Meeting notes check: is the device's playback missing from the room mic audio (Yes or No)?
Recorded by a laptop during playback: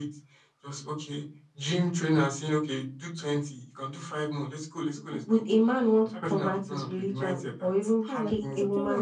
No